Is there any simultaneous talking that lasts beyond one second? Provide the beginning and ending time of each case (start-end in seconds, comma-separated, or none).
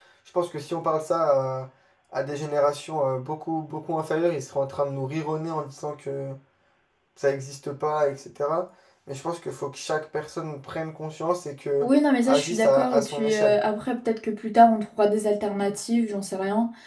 12.2-13.6